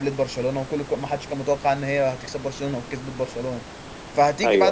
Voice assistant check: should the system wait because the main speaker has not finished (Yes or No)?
Yes